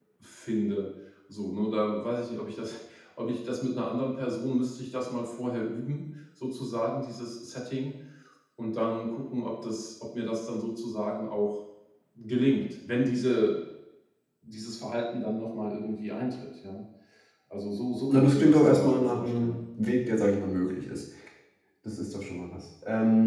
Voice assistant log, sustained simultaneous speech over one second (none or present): present